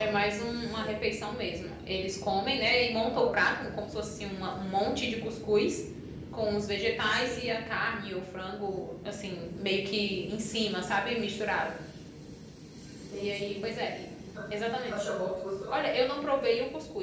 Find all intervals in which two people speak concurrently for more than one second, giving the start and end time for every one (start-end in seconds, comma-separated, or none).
none